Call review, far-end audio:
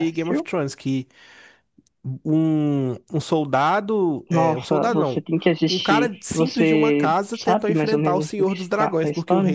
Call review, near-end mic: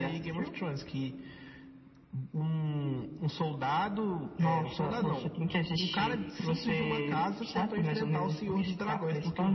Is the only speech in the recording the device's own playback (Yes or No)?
No